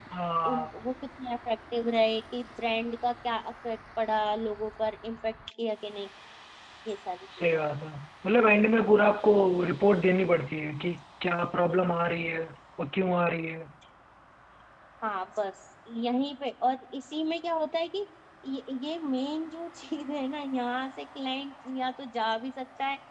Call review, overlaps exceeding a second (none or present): none